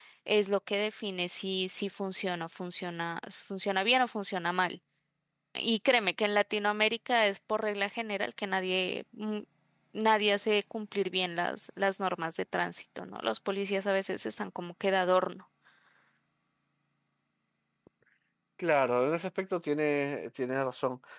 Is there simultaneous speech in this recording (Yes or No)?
No